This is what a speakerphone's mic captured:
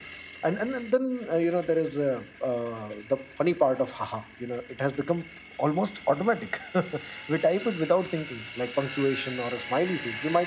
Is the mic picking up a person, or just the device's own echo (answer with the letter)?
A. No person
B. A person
A